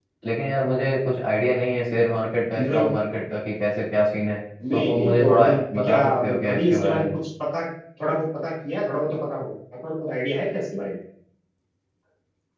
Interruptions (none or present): present